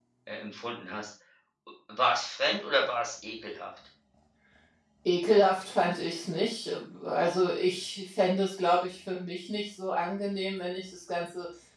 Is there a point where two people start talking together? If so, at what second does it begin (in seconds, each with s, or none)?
none